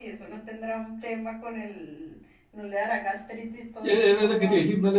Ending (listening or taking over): taking over